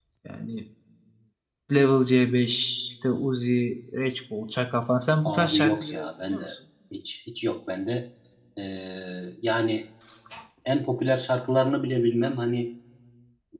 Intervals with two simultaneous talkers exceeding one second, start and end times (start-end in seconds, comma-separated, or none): 5.2-6.5